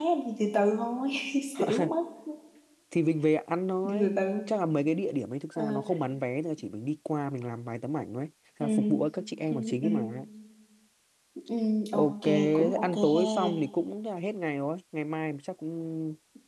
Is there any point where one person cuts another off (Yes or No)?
Yes